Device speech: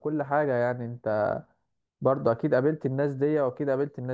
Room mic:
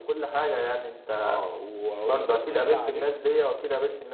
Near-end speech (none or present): present